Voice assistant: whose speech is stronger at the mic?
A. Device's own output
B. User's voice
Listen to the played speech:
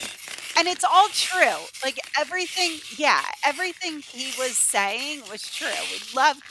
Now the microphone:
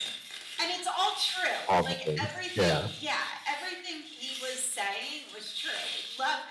B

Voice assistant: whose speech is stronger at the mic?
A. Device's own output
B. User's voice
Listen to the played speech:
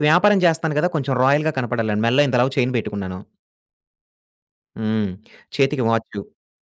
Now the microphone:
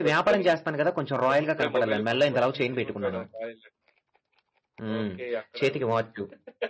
A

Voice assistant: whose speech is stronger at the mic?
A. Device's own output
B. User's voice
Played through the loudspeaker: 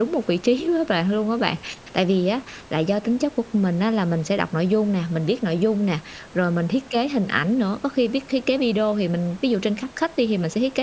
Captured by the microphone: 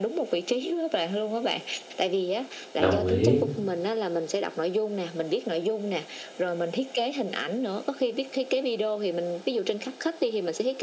B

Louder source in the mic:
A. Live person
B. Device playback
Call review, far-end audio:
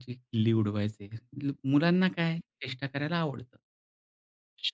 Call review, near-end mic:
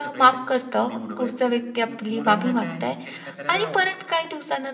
A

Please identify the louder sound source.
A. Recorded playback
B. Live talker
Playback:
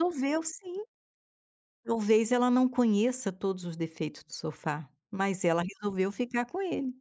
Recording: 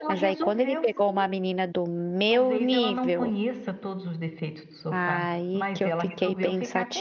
B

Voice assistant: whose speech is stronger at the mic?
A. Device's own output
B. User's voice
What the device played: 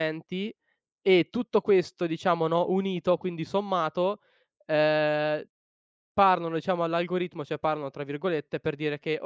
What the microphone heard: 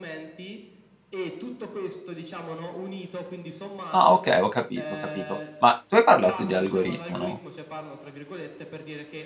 B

